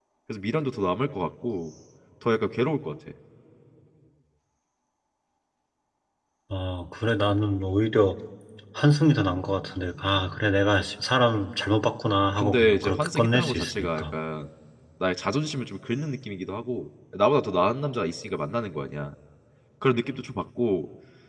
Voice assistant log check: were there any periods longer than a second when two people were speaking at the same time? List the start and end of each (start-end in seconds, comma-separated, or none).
12.4-14.0